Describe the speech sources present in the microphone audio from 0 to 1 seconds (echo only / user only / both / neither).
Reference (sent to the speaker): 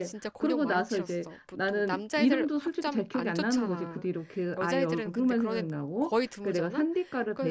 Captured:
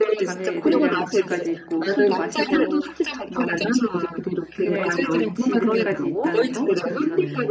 both